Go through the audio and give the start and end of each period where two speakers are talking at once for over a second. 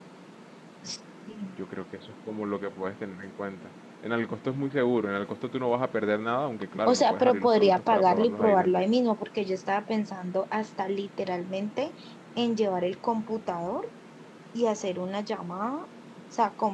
6.8-8.8

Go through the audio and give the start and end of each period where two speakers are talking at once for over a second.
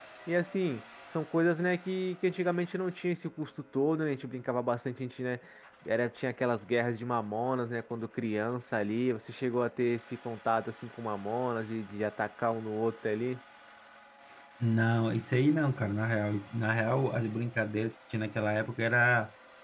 none

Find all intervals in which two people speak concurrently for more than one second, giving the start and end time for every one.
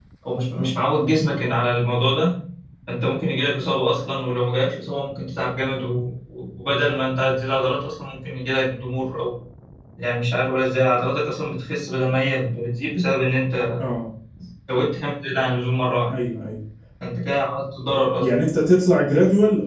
none

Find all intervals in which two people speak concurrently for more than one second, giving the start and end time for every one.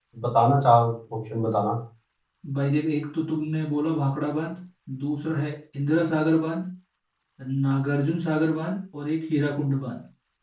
none

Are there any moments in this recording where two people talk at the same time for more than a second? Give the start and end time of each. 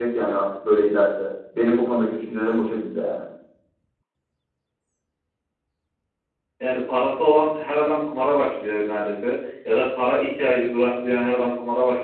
none

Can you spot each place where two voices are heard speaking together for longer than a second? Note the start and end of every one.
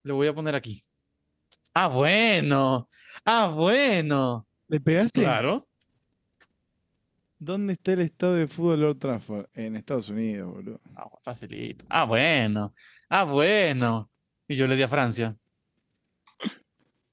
none

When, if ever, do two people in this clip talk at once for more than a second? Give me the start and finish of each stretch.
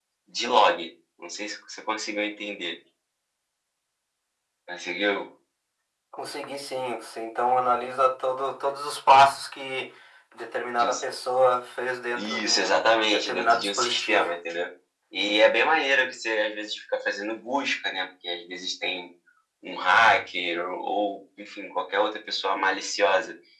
12.2-14.3

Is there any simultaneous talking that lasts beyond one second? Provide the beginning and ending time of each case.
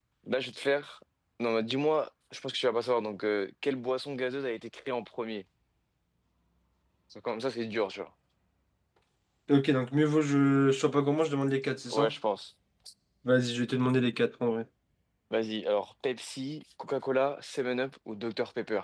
none

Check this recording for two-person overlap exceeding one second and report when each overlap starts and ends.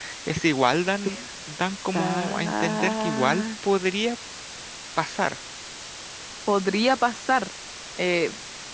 1.9-3.4

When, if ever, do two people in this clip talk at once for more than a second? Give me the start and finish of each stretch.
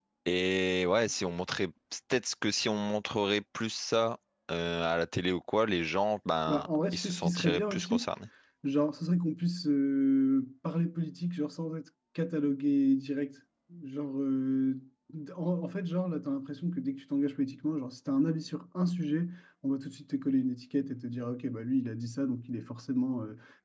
6.5-8.1

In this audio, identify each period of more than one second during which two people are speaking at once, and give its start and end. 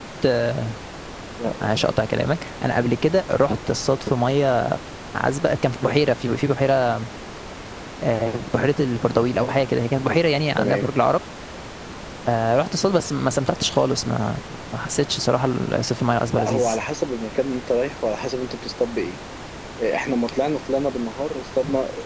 none

